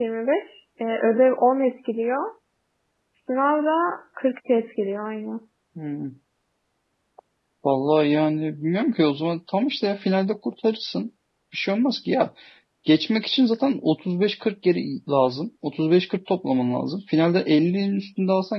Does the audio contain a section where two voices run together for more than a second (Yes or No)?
No